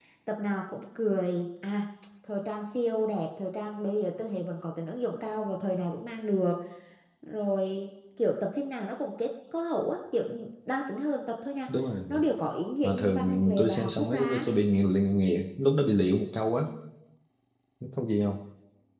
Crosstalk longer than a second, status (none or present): present